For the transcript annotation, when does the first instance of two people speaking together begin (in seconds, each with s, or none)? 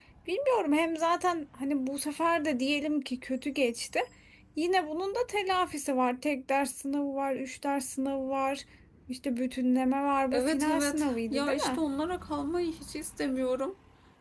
10.3 s